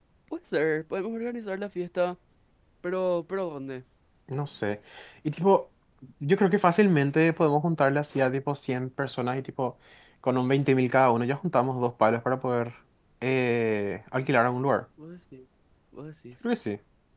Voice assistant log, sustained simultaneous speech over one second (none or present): none